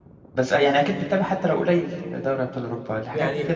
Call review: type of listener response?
taking over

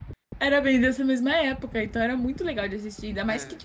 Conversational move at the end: listening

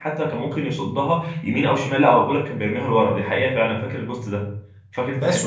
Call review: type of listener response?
taking over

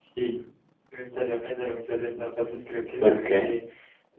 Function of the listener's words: listening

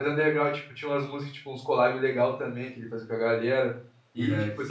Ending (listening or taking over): listening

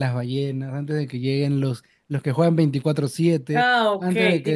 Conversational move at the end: taking over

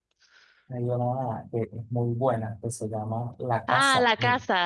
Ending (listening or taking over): taking over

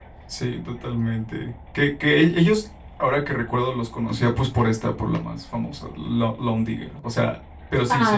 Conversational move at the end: taking over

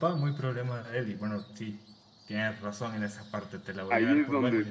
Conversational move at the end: taking over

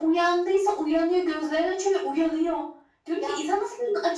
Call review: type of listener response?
listening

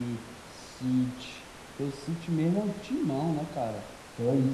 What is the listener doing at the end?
taking over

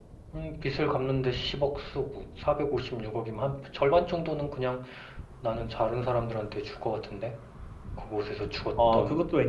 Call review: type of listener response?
taking over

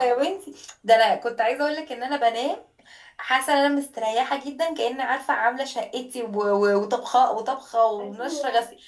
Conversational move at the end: listening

